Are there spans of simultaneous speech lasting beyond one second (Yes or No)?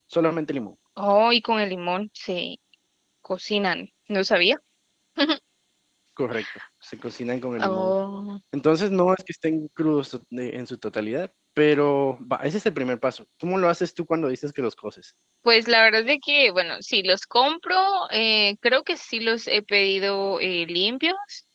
No